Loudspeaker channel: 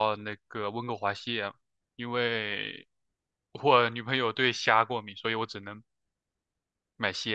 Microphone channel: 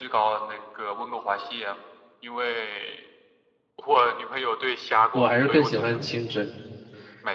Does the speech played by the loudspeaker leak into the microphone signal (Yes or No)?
Yes